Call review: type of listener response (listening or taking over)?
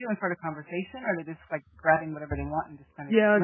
taking over